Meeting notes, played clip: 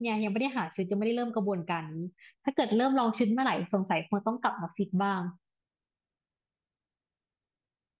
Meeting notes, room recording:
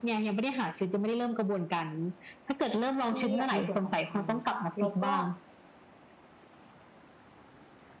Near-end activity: present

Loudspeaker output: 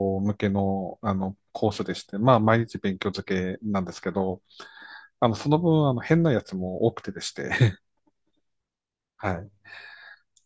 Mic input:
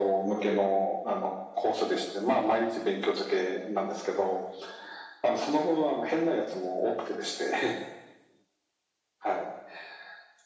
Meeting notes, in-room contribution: none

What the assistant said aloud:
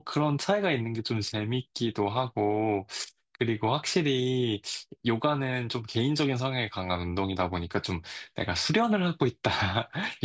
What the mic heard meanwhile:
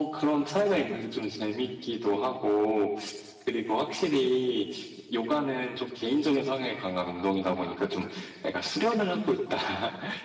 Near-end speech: none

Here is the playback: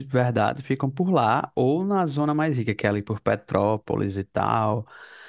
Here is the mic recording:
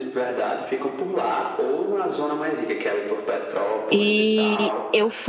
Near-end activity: present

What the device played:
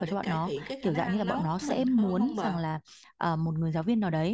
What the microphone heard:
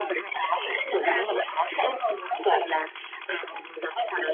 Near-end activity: none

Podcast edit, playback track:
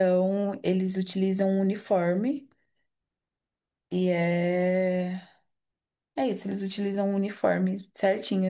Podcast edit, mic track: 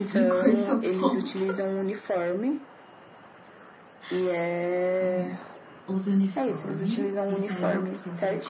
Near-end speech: present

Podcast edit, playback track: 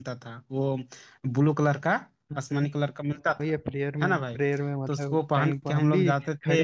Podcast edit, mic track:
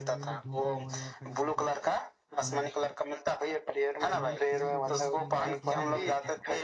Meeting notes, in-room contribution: present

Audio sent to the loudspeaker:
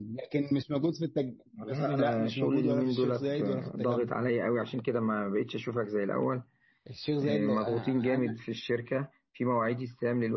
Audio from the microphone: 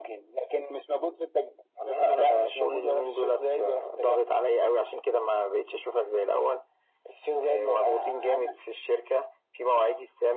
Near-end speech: none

